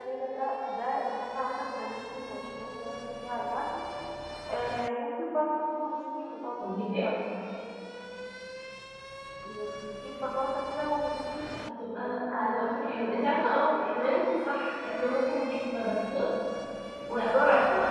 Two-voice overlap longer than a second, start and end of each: 11.7-13.2

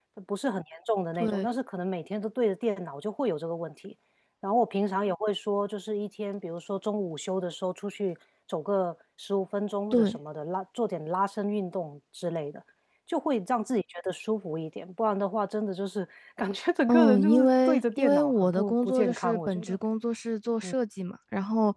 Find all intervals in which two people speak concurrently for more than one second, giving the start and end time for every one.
16.9-19.8

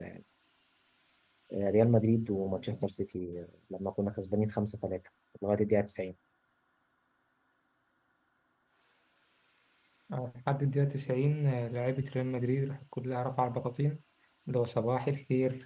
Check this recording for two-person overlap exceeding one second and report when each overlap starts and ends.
none

